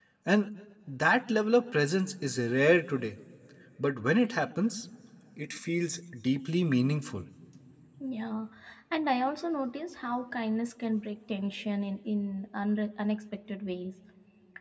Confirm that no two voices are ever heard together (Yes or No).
Yes